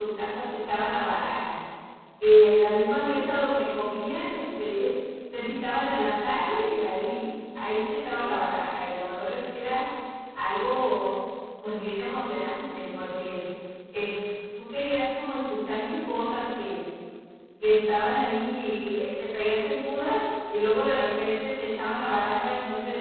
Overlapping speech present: No

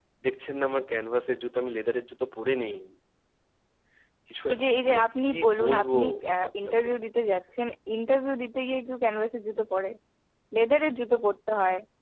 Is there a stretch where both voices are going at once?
Yes, from 4.5 s

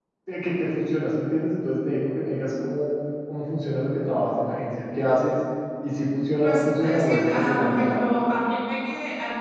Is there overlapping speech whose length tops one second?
Yes, from 6.4 s

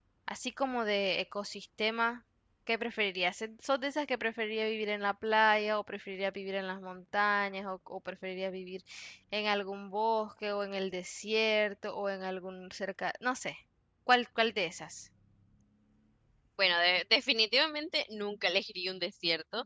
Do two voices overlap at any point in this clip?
No

